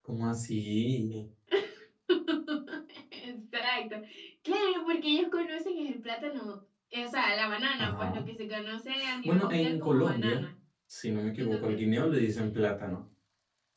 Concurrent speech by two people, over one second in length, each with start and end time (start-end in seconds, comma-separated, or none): 9.2-10.4